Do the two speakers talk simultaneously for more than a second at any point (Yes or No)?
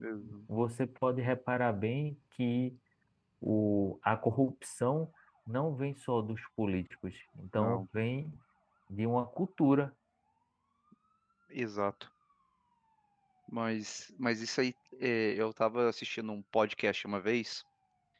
No